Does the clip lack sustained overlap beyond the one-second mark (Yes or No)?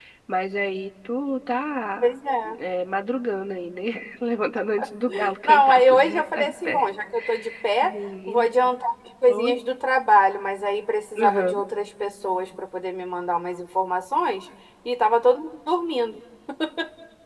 No